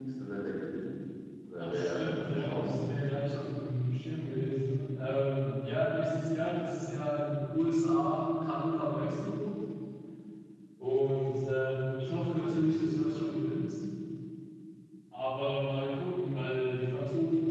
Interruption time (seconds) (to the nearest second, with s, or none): 2 s